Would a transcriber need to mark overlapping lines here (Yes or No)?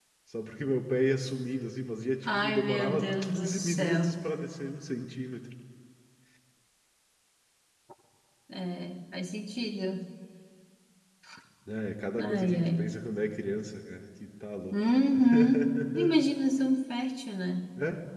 Yes